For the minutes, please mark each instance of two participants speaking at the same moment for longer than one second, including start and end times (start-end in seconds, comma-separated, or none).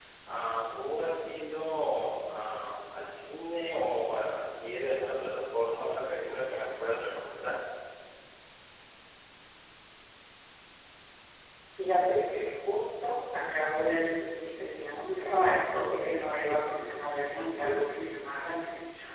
none